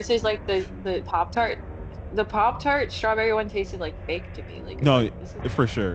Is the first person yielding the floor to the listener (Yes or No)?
Yes